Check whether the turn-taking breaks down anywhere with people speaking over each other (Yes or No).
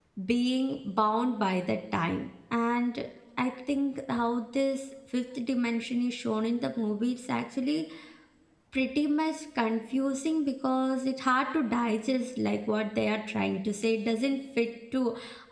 No